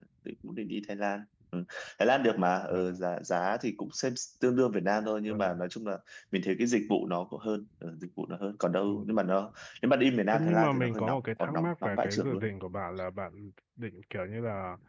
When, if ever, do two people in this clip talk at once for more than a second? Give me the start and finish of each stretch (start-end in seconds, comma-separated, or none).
10.3-12.4